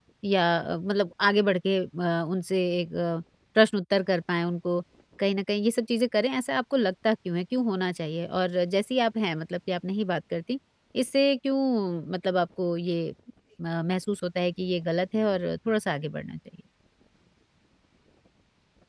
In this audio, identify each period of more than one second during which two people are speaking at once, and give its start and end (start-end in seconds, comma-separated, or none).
none